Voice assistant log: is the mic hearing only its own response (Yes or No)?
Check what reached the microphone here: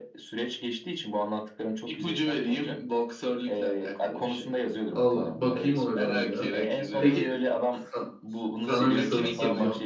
No